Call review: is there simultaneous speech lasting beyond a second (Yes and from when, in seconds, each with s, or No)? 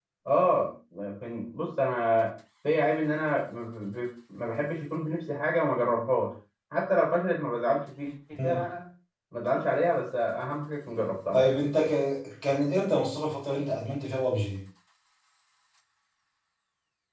No